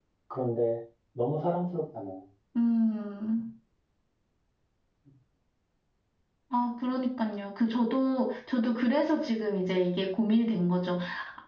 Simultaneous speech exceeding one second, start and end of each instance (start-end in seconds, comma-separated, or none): none